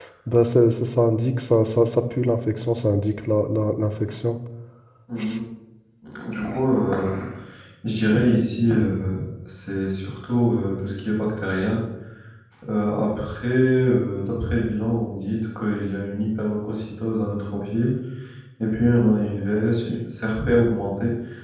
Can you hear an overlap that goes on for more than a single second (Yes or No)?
No